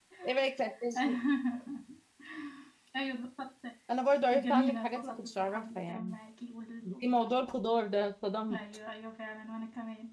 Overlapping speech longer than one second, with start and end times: 4.3-6.2

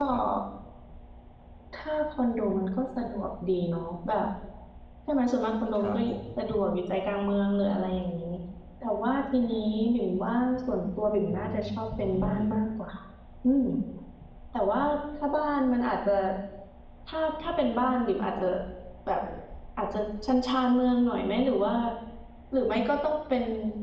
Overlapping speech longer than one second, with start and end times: 11.3-12.6

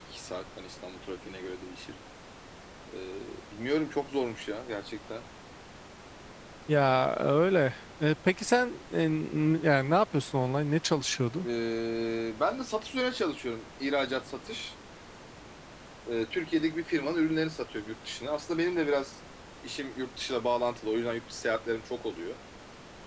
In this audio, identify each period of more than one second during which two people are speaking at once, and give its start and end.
none

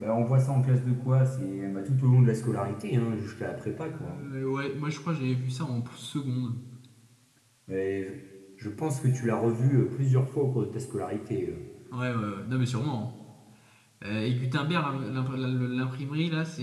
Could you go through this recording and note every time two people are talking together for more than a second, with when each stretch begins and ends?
none

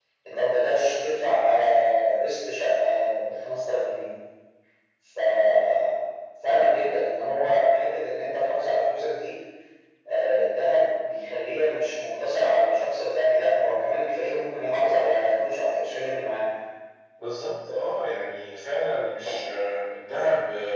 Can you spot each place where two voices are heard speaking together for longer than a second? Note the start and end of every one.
none

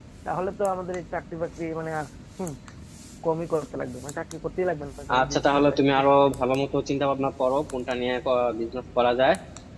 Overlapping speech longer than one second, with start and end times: 5.2-6.4

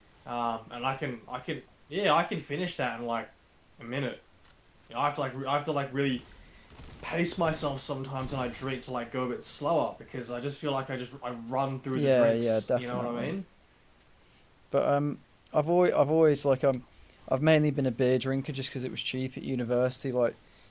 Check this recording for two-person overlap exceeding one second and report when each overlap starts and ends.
11.9-13.3

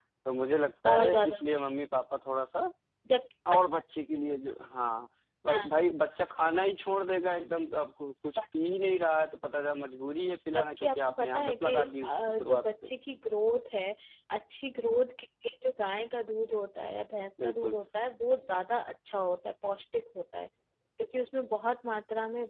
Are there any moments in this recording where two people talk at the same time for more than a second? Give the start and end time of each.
10.5-12.9

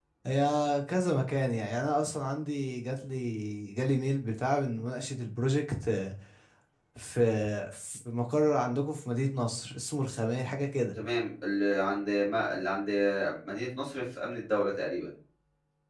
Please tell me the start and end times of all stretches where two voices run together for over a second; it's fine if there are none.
none

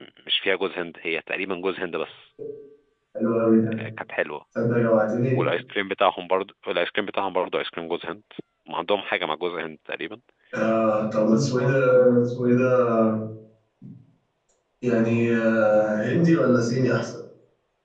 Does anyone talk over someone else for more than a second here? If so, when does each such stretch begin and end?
none

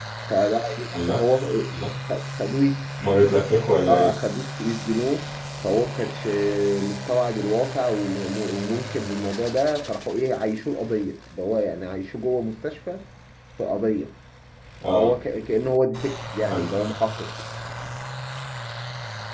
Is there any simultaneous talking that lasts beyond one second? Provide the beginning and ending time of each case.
none

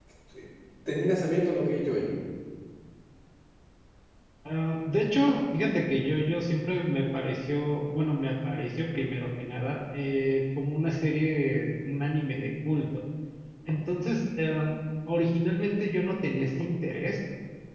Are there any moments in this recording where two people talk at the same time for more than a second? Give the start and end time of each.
none

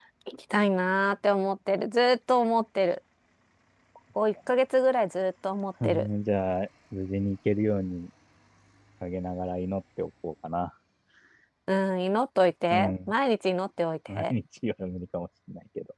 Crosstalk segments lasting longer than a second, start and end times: none

